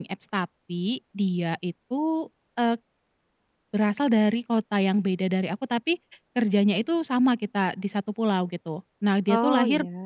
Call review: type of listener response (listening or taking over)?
listening